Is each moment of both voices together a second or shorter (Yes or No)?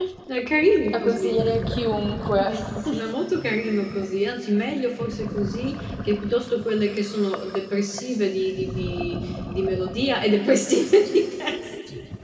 Yes